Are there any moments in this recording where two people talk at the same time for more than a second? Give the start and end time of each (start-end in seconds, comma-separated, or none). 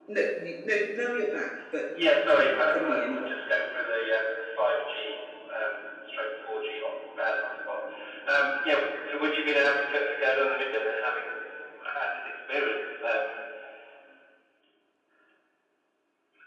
2.0-3.3